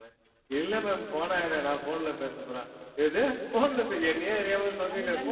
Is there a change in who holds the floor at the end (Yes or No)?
No